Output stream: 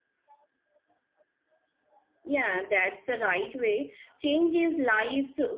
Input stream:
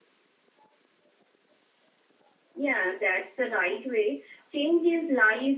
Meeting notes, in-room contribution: none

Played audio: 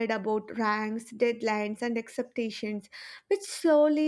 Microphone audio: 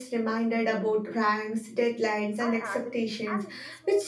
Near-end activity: present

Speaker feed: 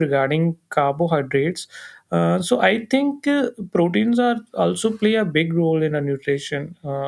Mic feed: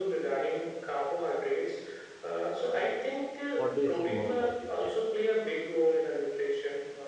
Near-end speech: present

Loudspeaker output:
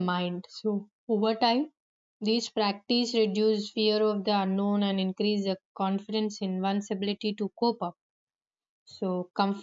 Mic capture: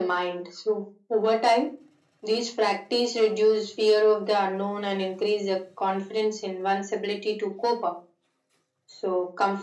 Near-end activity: none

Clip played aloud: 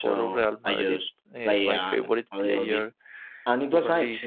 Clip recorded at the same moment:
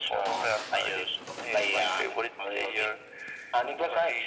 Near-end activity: none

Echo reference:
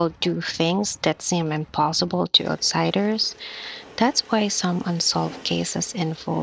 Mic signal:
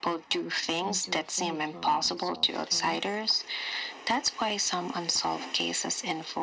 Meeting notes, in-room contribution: present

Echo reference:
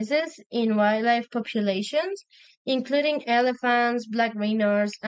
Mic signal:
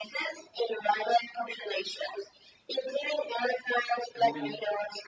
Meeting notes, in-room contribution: present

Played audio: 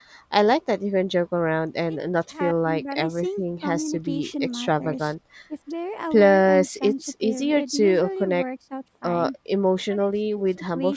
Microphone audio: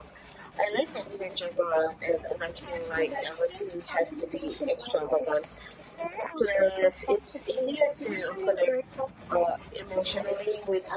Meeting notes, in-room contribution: none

